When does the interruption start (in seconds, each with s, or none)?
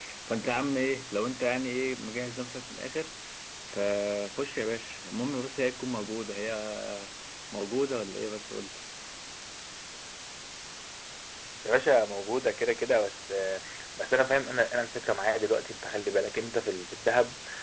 none